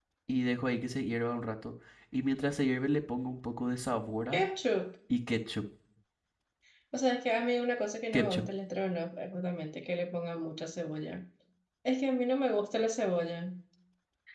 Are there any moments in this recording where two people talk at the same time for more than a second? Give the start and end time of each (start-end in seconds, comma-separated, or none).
none